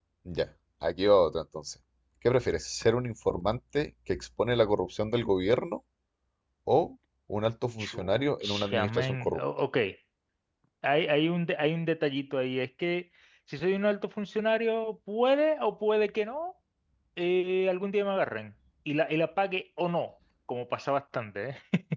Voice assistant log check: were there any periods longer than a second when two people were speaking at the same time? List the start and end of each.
7.8-9.4

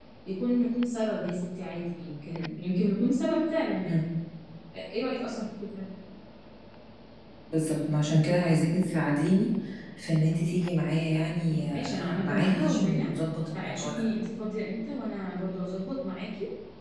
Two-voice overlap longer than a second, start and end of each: 11.7-13.1

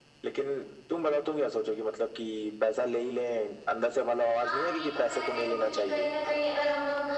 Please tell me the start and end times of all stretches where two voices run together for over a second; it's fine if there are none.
4.4-6.1

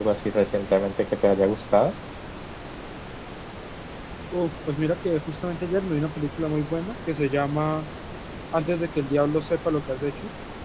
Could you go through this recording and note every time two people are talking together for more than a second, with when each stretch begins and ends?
none

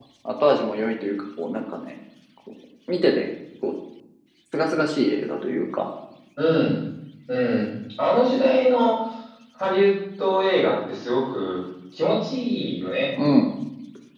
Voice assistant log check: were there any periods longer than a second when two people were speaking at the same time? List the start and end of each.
none

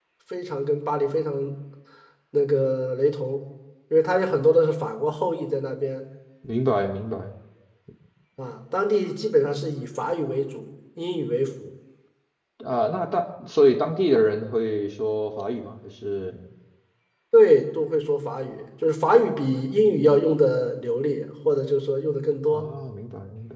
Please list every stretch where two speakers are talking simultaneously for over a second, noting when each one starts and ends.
none

